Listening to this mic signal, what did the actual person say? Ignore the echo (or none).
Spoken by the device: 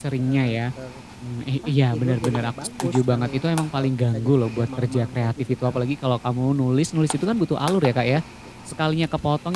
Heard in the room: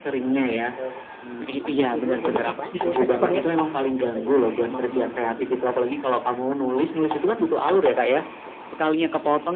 Iya. Distract banget, ya?